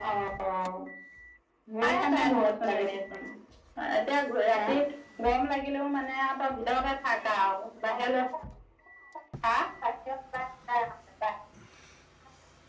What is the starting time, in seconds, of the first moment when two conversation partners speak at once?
1.8 s

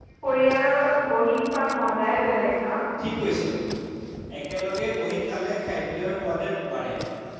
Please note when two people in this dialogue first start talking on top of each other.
none

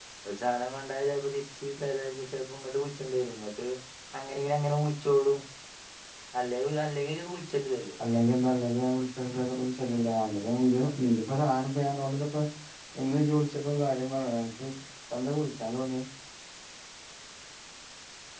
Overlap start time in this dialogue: none

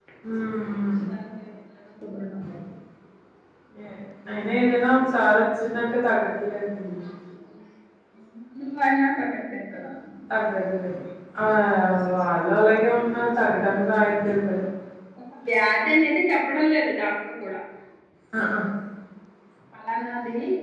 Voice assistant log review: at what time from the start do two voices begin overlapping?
none

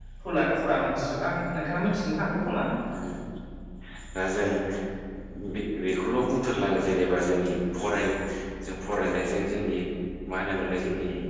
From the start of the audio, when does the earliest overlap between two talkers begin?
none

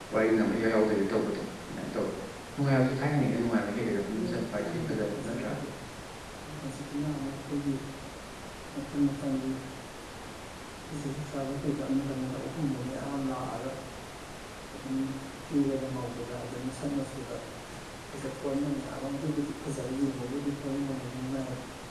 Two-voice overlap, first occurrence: 4.1 s

